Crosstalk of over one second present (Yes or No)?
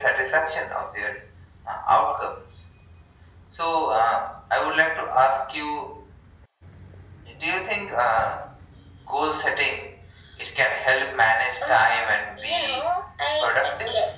Yes